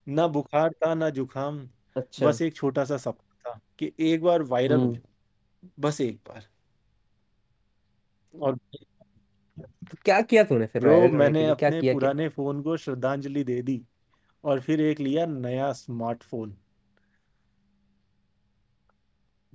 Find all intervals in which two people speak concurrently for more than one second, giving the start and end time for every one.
10.8-12.1

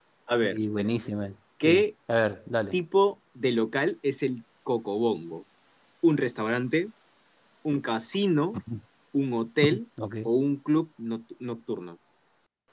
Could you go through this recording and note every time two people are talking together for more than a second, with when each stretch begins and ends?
none

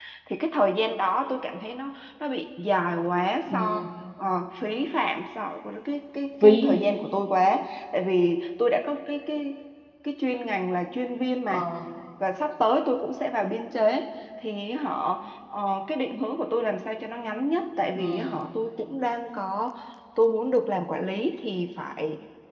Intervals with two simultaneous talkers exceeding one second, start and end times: none

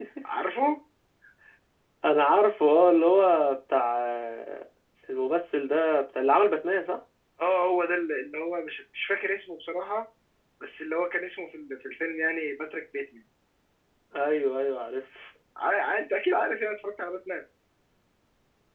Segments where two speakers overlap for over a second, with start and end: none

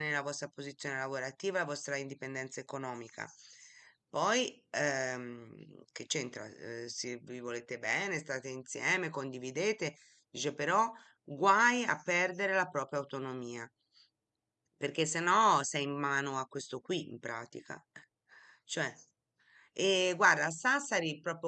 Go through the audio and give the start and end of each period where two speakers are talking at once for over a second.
none

